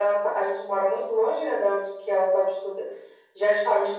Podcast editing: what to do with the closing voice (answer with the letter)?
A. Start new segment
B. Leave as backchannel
B